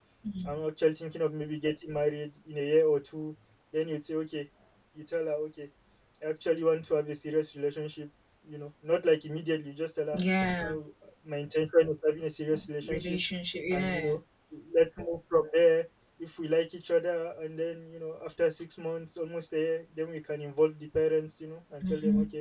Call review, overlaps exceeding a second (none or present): none